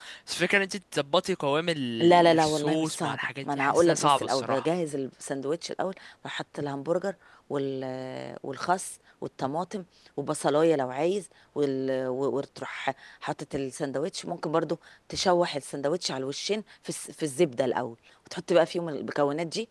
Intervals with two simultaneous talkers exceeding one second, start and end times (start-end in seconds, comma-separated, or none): 2.0-4.7